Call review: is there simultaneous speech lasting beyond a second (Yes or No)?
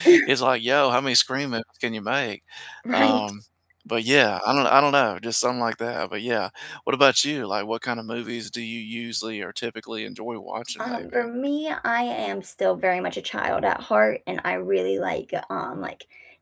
No